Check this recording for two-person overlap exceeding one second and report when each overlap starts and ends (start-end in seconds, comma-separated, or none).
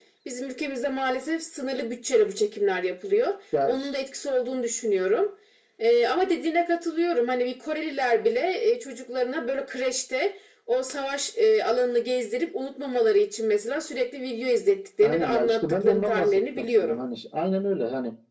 15.0-17.0